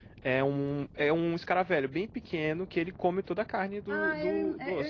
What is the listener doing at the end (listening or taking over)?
taking over